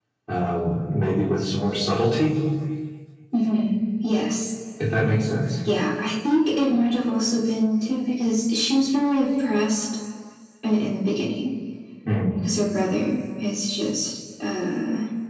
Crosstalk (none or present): none